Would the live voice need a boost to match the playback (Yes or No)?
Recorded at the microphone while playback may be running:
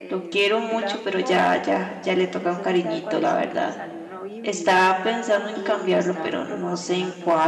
No